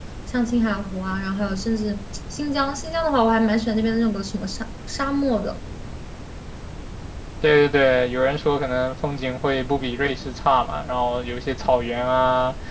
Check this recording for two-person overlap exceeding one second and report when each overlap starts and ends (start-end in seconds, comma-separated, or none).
none